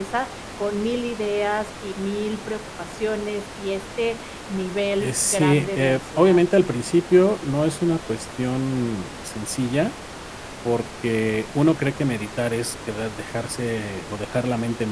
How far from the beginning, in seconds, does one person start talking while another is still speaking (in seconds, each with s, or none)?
5.0 s